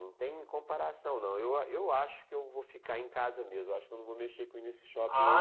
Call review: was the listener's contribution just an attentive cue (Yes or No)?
No